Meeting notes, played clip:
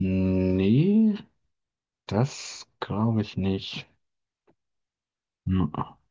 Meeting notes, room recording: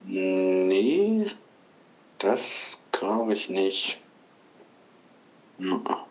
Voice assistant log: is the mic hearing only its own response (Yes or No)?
Yes